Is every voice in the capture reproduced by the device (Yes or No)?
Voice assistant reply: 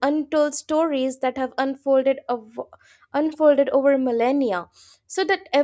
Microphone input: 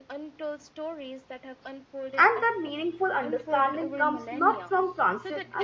No